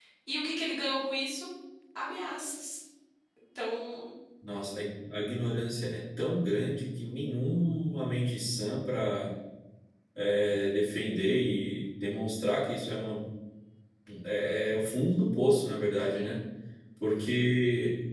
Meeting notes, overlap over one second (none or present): none